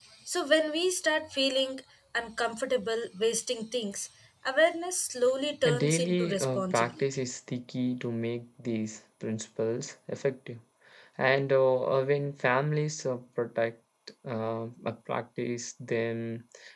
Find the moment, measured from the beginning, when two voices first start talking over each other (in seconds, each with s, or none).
5.7 s